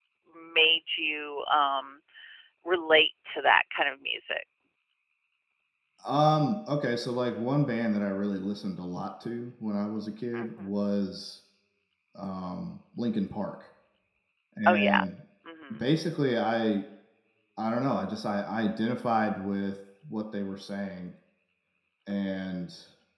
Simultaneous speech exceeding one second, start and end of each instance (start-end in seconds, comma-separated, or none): none